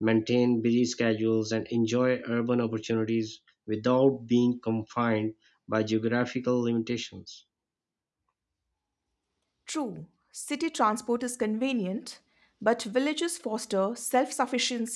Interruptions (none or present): none